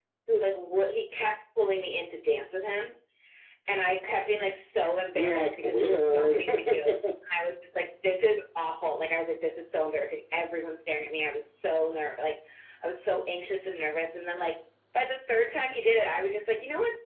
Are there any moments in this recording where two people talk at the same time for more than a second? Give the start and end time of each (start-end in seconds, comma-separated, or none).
5.1-7.0